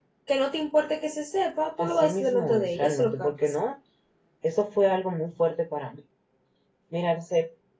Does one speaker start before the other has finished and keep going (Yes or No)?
Yes